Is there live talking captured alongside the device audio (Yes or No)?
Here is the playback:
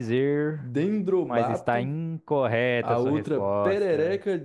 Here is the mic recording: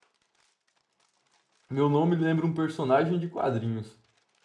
Yes